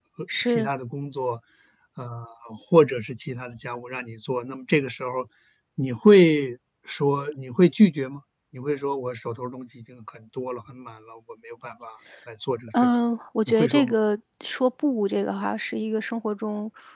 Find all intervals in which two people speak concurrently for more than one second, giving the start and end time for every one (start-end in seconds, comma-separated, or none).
none